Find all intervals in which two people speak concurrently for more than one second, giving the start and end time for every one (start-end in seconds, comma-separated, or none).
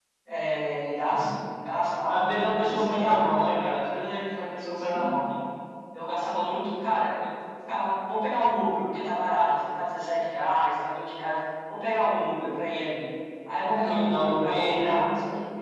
2.0-3.5, 13.6-15.0